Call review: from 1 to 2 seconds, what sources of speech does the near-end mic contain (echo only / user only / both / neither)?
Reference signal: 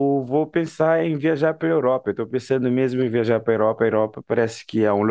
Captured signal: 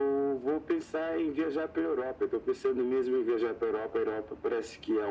echo only